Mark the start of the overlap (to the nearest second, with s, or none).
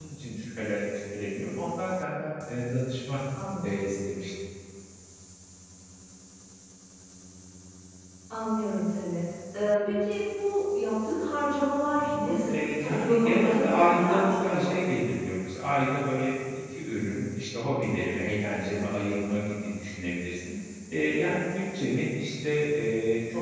12 s